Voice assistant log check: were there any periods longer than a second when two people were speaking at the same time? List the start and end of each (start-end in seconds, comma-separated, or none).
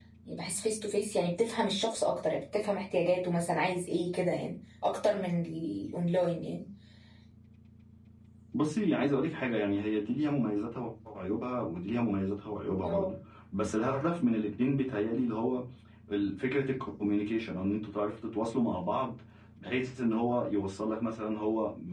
none